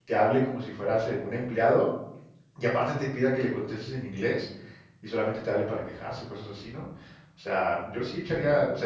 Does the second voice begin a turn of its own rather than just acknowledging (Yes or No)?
No